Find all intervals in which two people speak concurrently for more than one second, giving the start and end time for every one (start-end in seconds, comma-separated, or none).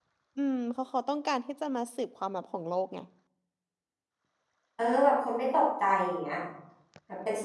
none